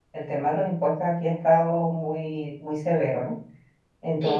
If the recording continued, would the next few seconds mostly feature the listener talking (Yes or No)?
No